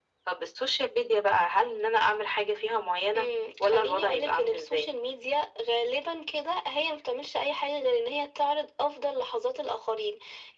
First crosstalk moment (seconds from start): 3.6 s

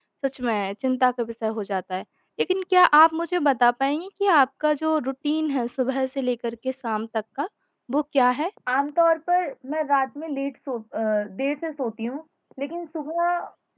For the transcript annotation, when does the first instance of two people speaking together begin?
none

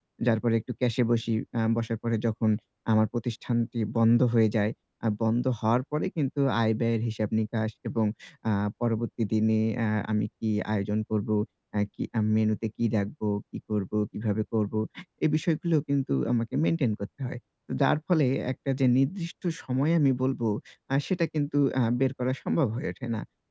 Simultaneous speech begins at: none

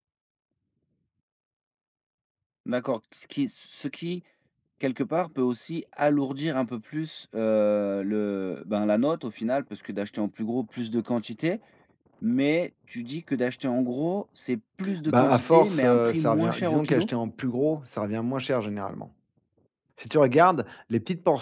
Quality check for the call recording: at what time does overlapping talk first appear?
15.1 s

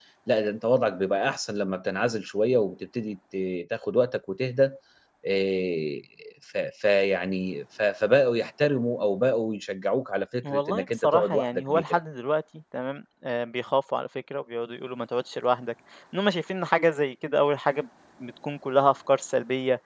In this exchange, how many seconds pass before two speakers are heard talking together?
10.4 s

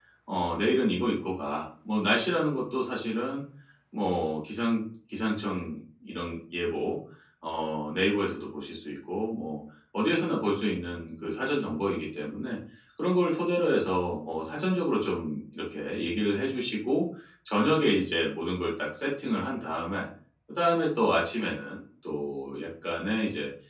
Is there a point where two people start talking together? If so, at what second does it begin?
none

